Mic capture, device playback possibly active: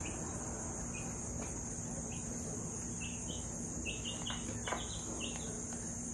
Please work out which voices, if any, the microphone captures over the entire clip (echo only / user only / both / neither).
neither